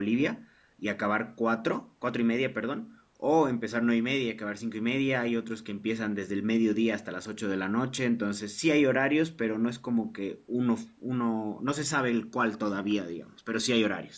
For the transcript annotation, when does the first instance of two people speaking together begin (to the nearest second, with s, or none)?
none